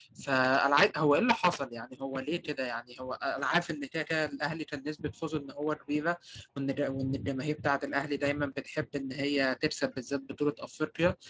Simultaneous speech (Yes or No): No